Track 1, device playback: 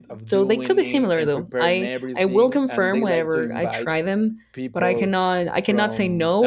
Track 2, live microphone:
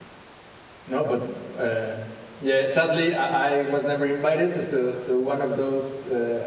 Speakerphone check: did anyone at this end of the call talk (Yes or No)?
Yes